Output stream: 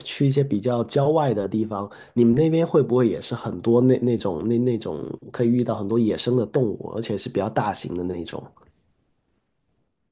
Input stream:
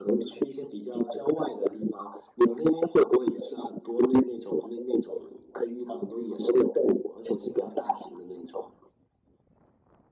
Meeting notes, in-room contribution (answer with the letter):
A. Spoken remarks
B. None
B